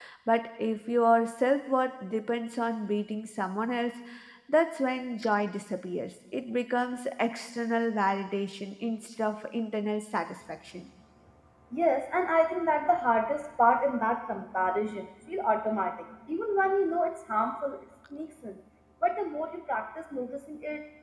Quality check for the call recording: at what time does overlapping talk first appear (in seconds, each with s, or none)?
none